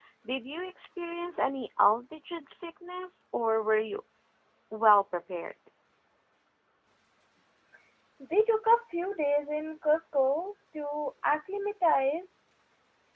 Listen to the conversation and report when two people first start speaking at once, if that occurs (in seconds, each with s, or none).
none